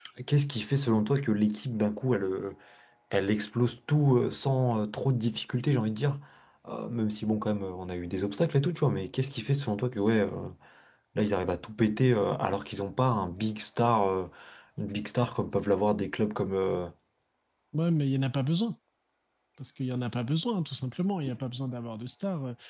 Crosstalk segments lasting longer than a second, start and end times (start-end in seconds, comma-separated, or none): none